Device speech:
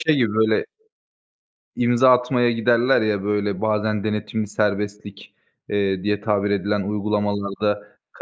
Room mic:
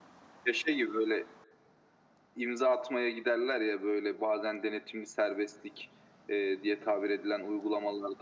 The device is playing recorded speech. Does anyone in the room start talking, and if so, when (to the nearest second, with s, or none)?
none